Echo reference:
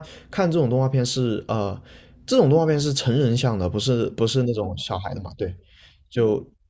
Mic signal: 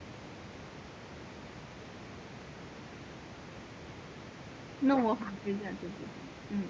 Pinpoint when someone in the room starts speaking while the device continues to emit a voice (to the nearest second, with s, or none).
5 s